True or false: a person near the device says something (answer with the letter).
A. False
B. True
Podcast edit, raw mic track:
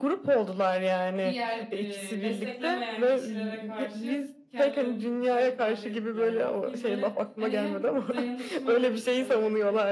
B